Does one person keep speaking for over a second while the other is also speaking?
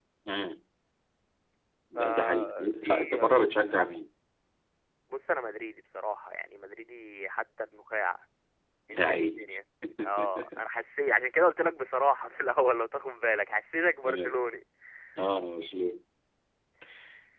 Yes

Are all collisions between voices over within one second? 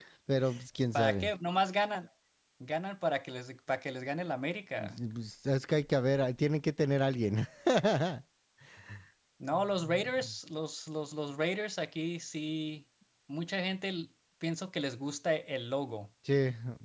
Yes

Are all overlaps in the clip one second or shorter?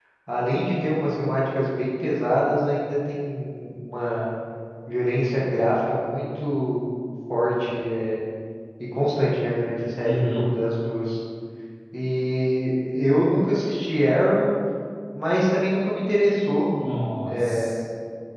Yes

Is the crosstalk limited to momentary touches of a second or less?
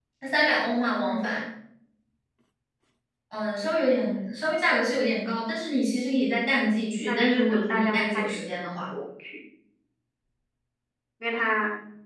No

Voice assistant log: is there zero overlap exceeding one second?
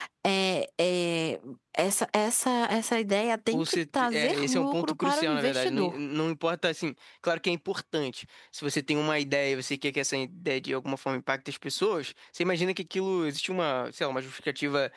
No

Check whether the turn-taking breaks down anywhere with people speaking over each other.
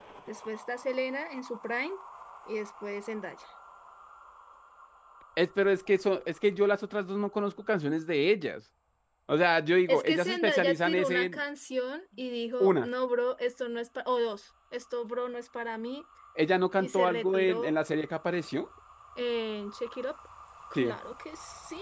Yes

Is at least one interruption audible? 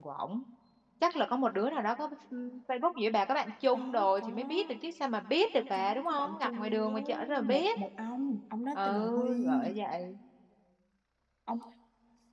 Yes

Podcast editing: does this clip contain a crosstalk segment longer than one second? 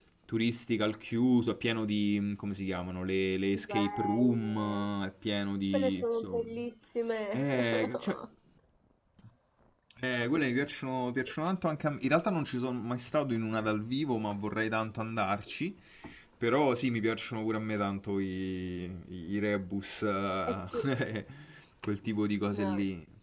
Yes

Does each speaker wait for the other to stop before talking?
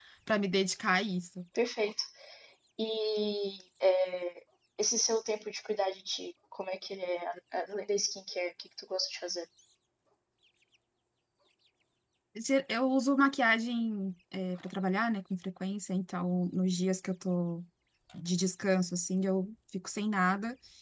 Yes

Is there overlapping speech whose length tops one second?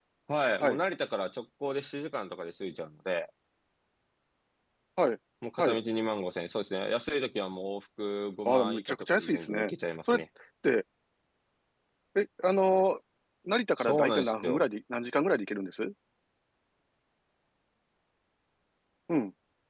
Yes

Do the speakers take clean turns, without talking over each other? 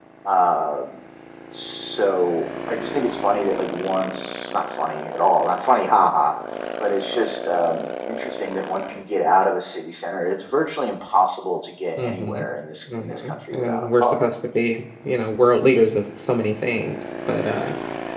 No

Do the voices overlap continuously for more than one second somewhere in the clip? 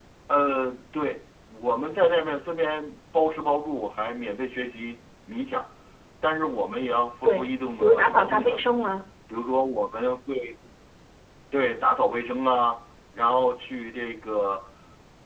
Yes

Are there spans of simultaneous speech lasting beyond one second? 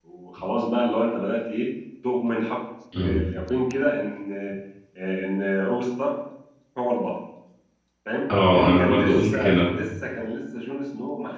Yes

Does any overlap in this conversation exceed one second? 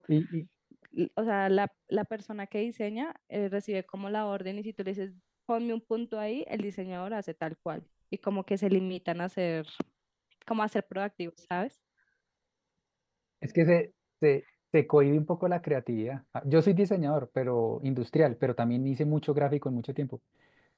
No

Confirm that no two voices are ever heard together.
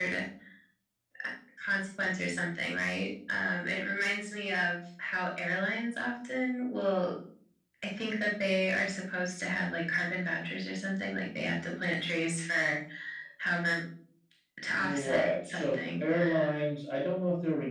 No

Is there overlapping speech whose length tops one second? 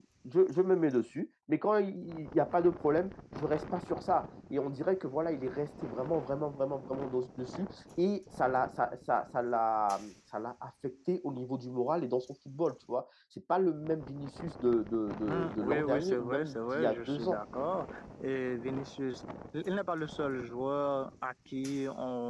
Yes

